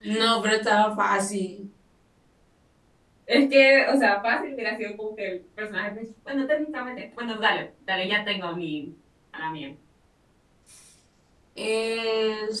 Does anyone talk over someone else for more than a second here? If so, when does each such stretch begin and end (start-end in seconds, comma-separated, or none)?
none